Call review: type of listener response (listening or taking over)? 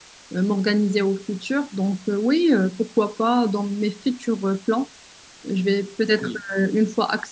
listening